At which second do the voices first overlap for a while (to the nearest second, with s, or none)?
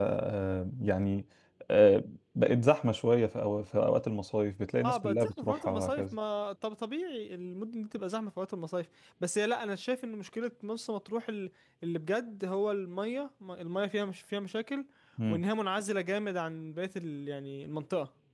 5 s